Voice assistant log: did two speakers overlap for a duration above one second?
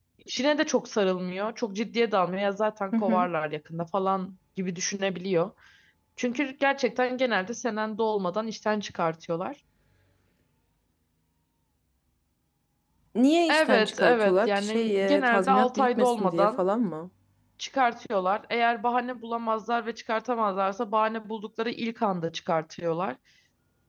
Yes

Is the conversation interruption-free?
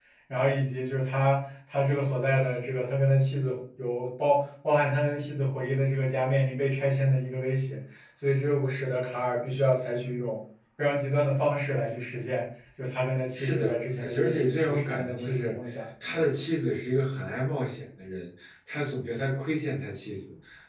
No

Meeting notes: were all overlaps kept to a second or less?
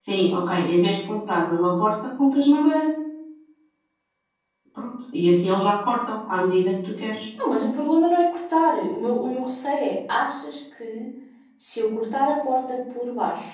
Yes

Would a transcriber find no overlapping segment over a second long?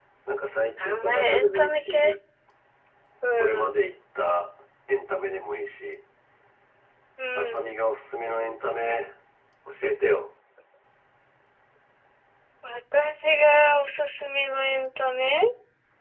No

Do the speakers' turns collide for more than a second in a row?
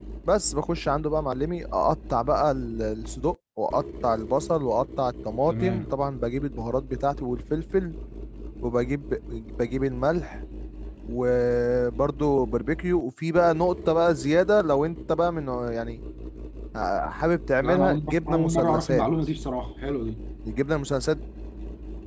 Yes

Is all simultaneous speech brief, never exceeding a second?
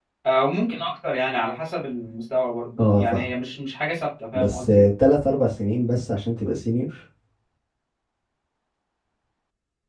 Yes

